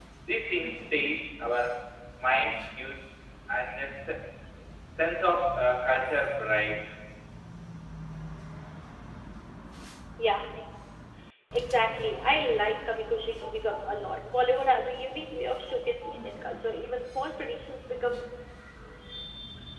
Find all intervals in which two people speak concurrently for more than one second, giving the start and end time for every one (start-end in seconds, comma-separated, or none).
none